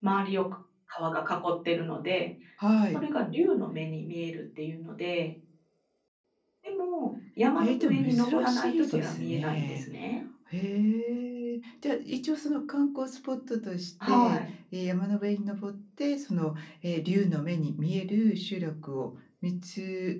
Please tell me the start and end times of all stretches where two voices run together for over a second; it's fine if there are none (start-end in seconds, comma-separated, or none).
7.6-9.8